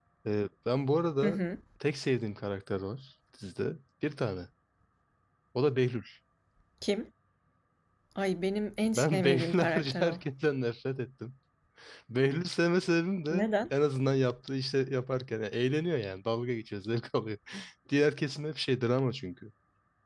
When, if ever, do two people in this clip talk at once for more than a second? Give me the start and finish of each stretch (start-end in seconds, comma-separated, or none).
8.8-10.2